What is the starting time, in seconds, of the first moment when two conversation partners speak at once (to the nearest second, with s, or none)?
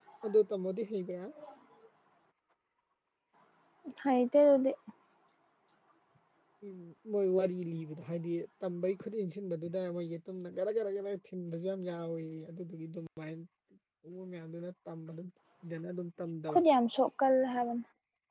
none